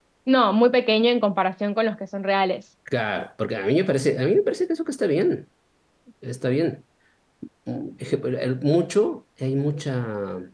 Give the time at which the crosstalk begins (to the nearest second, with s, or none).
none